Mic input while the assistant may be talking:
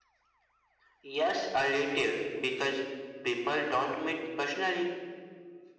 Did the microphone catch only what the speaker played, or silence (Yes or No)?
Yes